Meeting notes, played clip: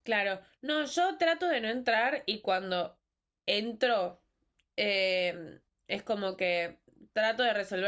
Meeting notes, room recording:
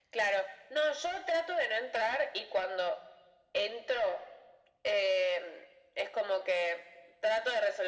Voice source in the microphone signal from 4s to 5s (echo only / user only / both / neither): echo only